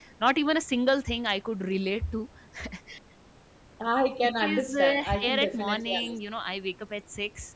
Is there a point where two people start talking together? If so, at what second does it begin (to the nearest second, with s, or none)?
4 s